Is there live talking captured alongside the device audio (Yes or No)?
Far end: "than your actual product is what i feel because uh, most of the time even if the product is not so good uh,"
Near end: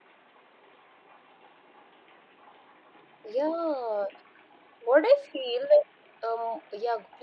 Yes